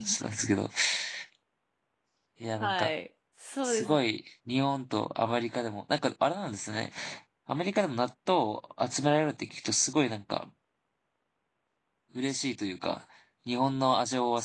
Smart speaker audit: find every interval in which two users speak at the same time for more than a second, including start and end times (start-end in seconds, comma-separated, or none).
none